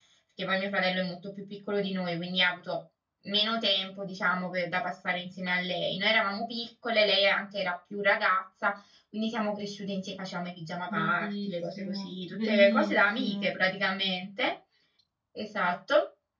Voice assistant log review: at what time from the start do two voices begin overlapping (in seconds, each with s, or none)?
10.9 s